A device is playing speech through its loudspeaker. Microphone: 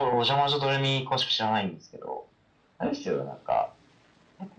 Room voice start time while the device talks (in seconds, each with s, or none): none